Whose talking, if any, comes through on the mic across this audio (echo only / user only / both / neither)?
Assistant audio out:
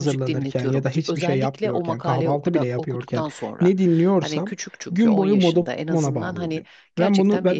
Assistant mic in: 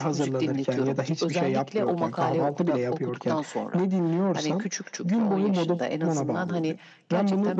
echo only